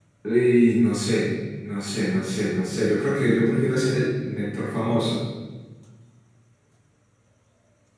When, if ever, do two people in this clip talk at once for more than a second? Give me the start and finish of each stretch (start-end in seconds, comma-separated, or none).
none